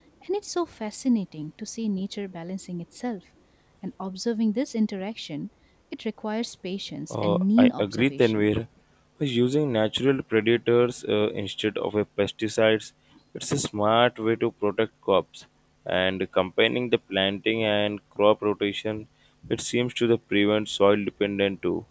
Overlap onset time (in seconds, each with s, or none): 7.1 s